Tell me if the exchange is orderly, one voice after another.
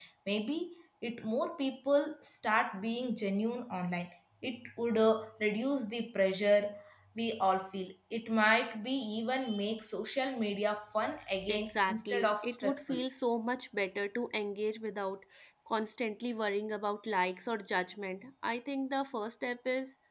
No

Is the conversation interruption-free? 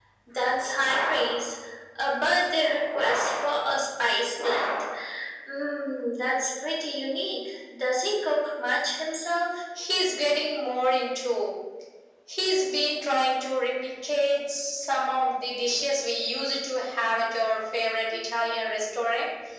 Yes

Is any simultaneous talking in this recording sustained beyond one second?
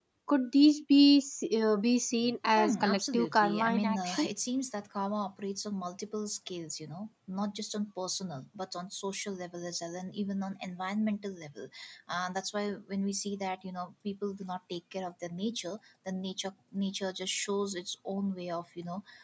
Yes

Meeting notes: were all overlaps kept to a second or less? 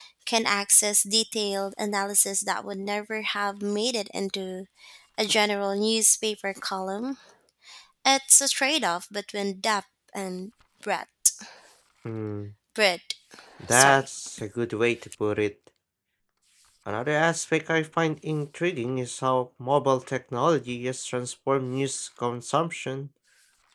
Yes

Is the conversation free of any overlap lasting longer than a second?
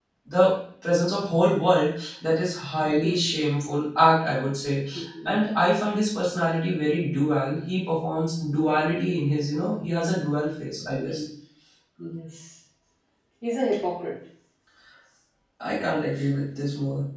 Yes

